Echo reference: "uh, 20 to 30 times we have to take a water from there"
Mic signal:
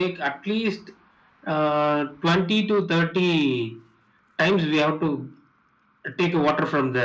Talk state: echo only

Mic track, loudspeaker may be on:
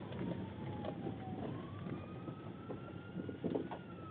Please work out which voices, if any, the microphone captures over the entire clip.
neither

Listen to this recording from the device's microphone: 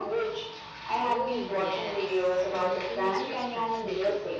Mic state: both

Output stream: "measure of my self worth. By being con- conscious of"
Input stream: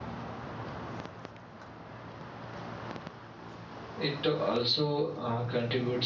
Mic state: user only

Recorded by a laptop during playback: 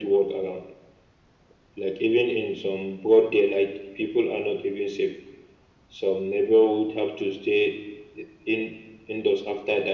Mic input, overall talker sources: echo only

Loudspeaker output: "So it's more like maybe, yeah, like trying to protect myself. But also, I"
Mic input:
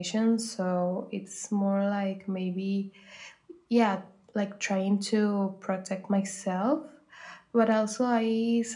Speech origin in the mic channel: echo only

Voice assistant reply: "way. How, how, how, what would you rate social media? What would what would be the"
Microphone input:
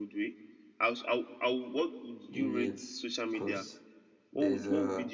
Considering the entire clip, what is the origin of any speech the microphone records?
both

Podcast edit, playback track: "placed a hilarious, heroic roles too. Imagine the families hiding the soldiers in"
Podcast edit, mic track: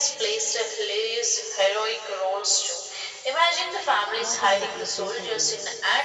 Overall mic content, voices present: both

